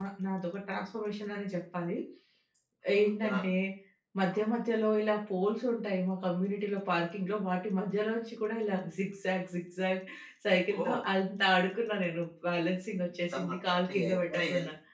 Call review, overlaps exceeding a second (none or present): present